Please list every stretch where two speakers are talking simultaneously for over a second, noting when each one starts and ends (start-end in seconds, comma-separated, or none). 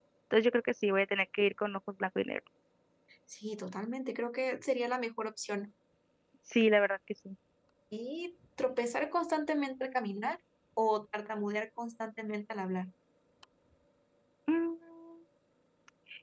none